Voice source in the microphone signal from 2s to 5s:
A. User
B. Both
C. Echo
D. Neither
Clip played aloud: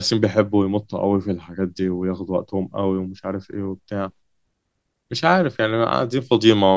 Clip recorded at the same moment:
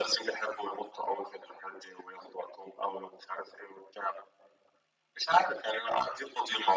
C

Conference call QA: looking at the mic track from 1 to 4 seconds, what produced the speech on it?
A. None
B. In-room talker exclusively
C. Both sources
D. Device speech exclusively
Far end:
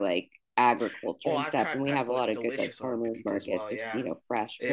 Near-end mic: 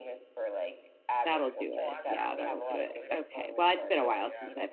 C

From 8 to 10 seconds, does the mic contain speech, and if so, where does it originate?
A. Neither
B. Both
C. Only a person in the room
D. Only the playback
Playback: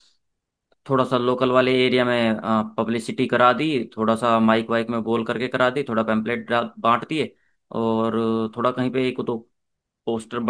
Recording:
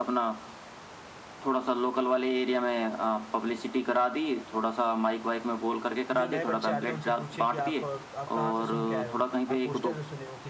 B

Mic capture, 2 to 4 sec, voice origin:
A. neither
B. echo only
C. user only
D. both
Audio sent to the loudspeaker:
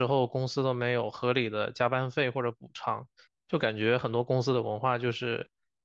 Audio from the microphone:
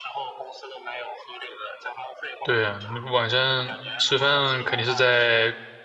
D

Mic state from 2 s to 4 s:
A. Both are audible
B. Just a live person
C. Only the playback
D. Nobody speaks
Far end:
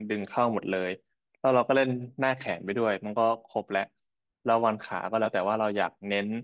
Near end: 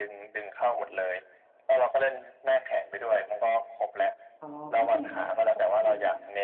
C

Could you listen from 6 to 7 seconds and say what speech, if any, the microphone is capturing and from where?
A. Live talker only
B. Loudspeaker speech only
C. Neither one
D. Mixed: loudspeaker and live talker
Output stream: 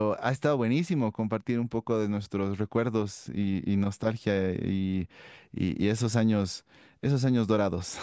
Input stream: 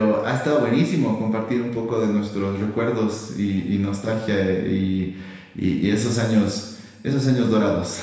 B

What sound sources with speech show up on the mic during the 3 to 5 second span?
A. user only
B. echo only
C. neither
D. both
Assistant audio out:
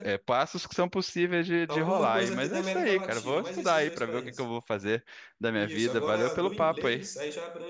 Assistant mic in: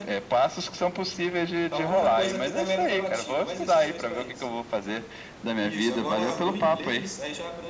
B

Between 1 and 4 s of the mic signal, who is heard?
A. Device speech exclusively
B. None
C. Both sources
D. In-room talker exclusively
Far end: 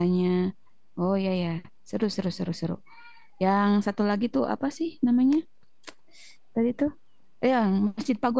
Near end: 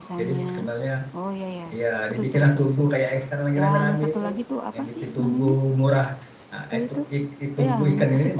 C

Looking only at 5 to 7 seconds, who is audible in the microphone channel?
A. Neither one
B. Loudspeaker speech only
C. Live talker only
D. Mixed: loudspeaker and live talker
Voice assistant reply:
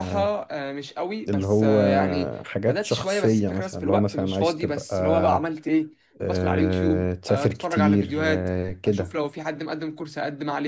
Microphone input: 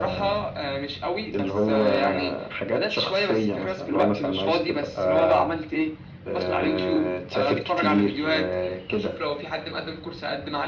B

